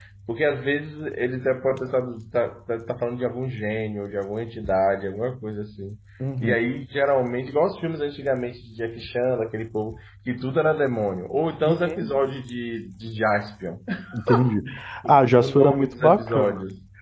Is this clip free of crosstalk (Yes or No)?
No